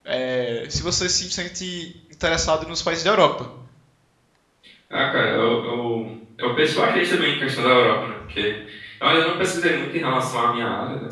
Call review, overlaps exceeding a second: none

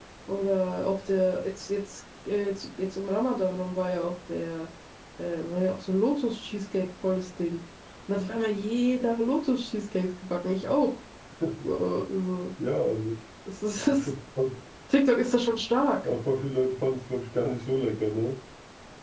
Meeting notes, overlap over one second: none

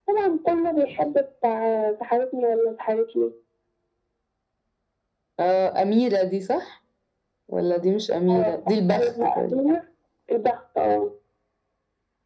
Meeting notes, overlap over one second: present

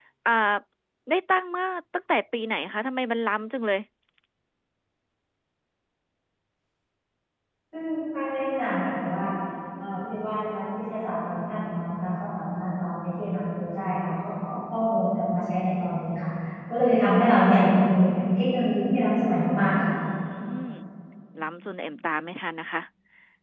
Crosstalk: none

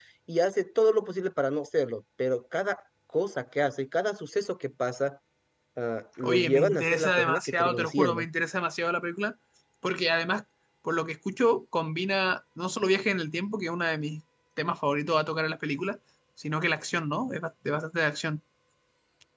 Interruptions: present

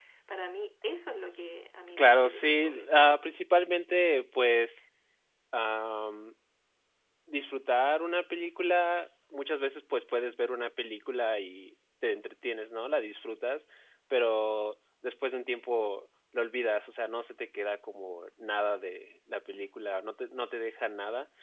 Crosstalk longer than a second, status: present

